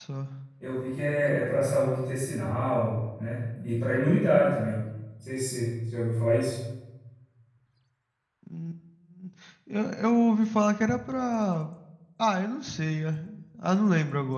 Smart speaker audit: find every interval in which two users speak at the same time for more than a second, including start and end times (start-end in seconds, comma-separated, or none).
none